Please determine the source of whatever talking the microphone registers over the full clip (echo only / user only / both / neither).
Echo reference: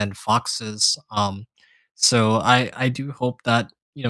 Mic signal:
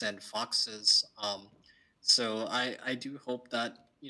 echo only